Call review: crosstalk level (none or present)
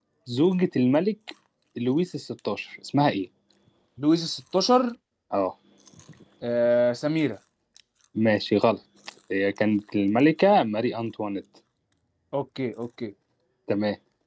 none